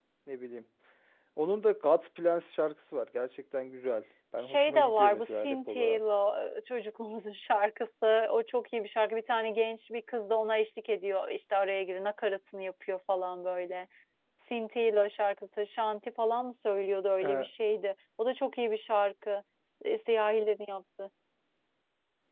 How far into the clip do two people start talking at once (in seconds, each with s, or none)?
4.4 s